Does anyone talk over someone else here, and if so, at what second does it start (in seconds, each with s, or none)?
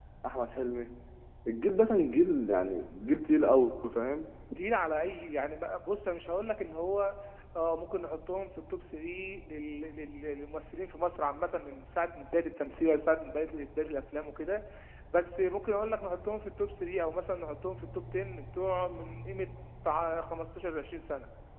none